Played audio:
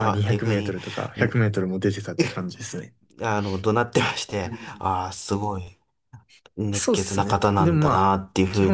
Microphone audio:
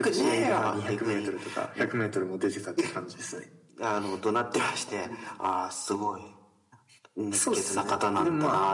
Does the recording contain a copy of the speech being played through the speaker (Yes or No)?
Yes